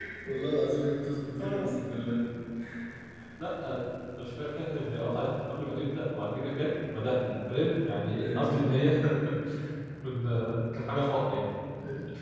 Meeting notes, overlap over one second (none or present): none